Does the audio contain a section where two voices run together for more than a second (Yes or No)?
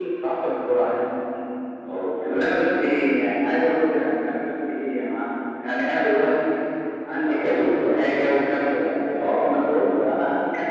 Yes